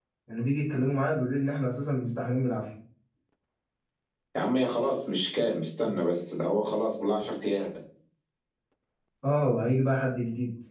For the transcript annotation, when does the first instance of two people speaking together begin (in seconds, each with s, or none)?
none